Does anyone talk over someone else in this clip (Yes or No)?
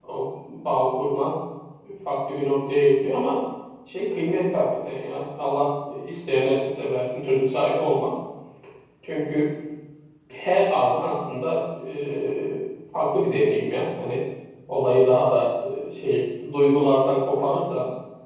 No